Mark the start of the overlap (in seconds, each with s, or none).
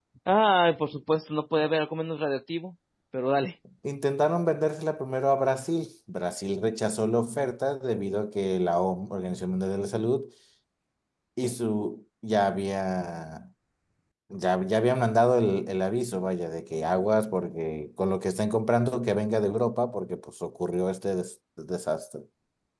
none